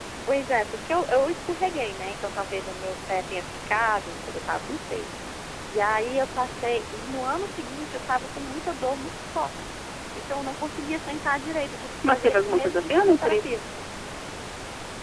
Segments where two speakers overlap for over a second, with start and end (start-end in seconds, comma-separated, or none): 12.1-13.6